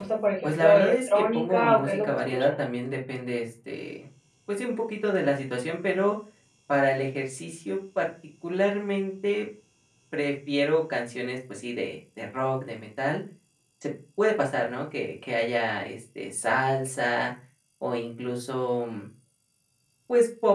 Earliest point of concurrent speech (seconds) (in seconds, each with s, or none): 0.6 s